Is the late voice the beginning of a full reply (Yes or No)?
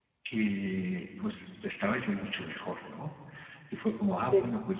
No